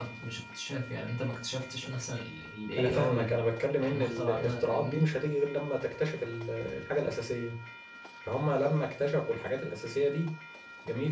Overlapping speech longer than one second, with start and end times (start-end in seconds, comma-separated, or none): 3.8-5.0